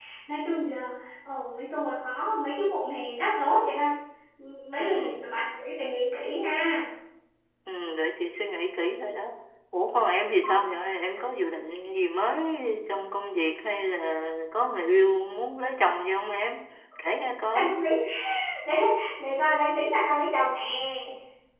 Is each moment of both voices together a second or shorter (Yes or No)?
Yes